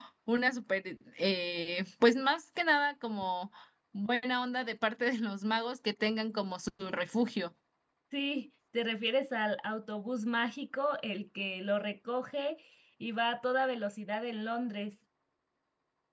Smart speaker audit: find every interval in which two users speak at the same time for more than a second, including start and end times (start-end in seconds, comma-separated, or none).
none